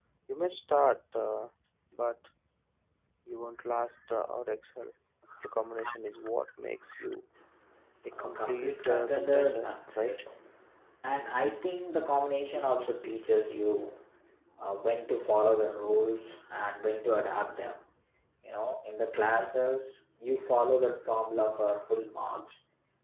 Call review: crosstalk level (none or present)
present